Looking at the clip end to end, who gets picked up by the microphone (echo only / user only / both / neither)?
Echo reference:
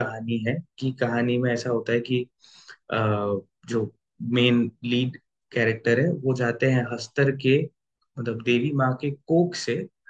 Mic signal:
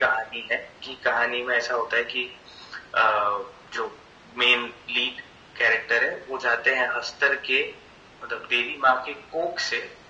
echo only